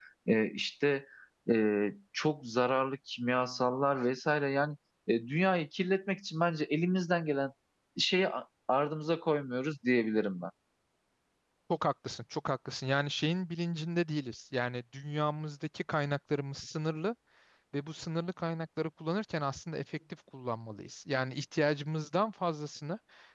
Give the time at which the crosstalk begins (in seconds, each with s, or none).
none